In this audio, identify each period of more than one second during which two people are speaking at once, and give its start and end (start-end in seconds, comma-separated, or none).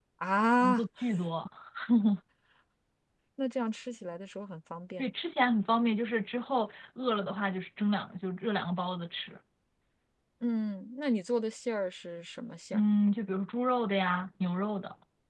none